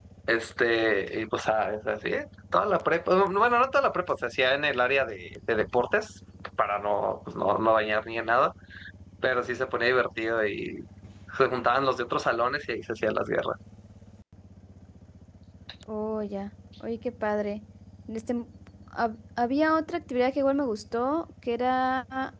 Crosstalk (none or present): none